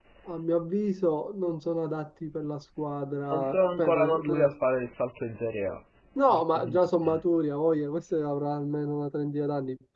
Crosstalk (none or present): present